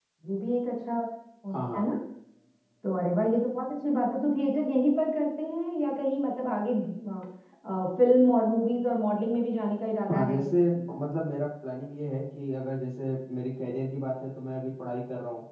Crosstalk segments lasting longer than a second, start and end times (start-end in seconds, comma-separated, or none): none